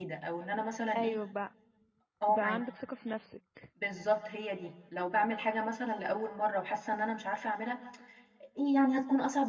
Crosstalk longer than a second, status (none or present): none